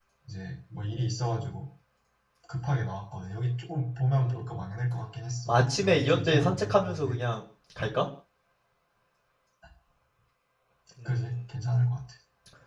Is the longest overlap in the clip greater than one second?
Yes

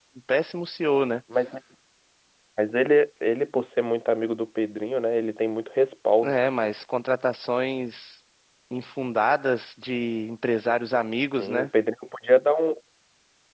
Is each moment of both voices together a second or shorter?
Yes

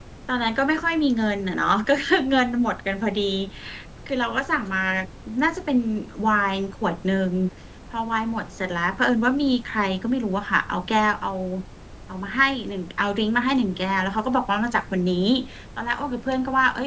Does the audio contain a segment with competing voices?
No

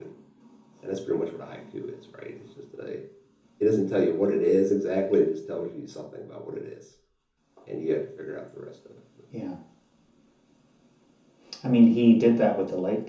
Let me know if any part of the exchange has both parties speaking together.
No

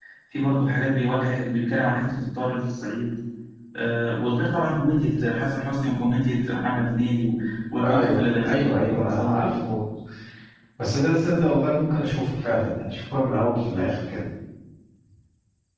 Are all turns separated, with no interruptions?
No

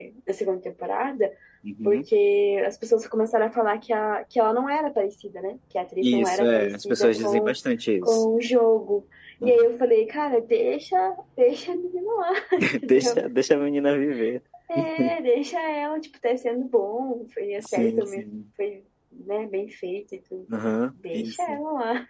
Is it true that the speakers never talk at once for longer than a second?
No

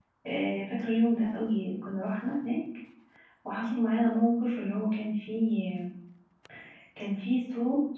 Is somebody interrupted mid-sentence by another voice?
No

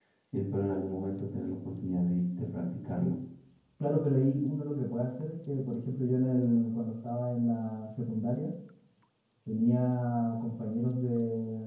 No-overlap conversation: Yes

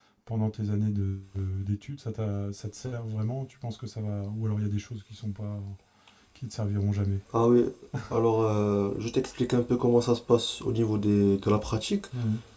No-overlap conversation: Yes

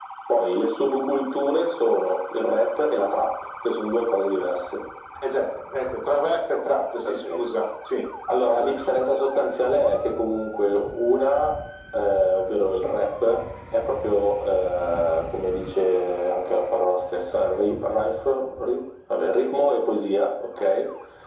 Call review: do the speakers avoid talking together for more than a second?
Yes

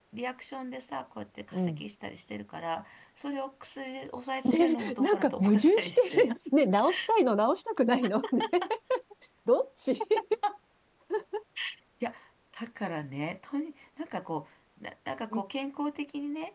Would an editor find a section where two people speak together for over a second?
Yes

